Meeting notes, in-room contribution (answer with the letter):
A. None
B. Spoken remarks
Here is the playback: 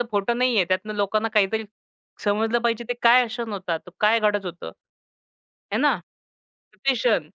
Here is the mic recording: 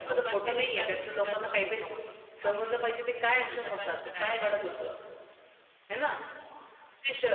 B